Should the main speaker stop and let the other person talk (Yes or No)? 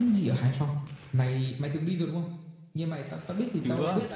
No